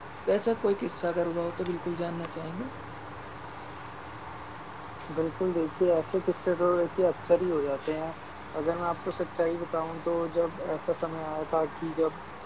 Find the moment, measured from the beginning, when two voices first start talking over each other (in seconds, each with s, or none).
none